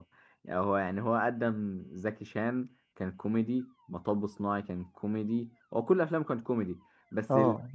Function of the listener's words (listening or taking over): taking over